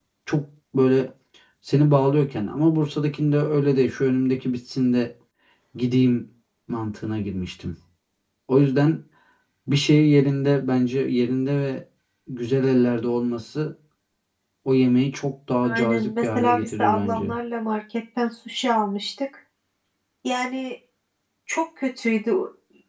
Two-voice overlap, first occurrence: 15.6 s

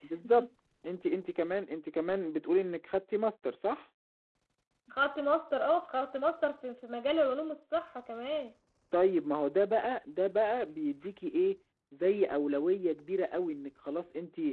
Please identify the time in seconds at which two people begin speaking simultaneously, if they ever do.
none

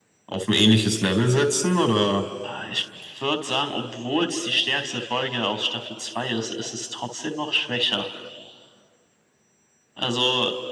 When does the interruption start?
none

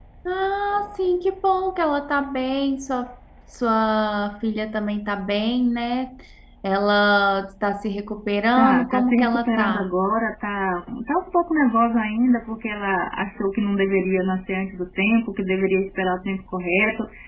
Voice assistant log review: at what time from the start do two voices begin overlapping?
8.6 s

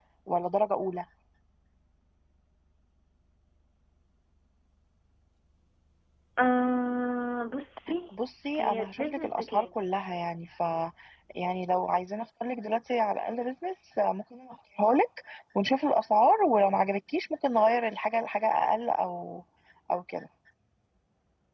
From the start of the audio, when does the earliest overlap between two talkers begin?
8.6 s

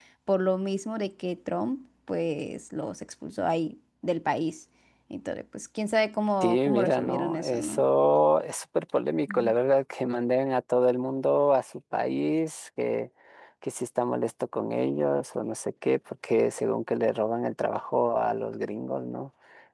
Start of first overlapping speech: 6.4 s

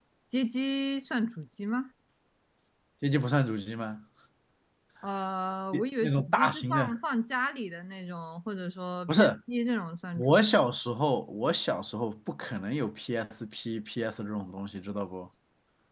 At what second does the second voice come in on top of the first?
5.7 s

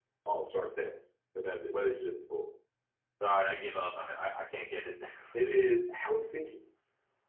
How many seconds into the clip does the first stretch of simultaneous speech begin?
none

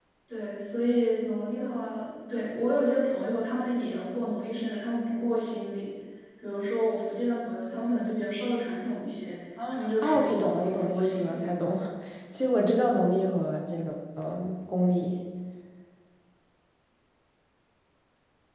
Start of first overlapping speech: 9.6 s

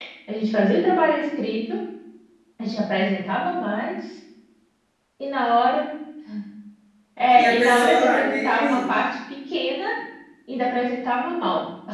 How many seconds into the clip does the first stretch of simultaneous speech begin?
7.3 s

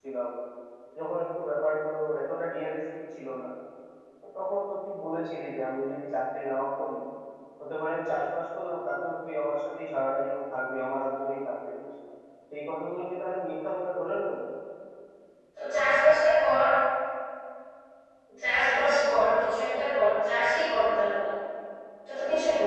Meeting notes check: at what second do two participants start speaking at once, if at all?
none

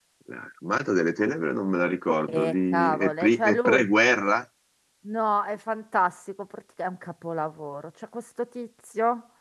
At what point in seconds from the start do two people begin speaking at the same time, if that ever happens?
2.3 s

